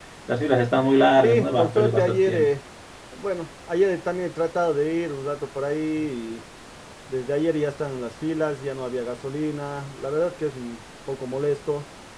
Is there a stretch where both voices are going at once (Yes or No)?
Yes